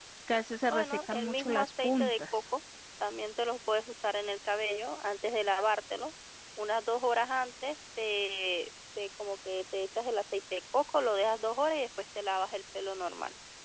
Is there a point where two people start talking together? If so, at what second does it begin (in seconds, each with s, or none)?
0.7 s